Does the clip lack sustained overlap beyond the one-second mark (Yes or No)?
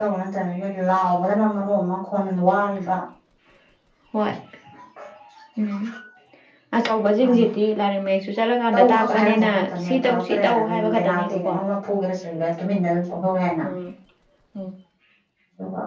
No